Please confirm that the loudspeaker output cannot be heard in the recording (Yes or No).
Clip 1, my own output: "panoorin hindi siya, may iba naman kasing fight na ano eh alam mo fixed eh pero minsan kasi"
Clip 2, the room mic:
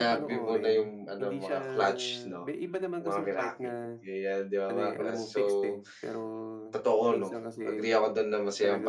No